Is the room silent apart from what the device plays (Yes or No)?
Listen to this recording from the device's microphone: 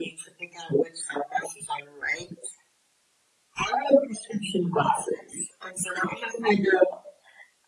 Yes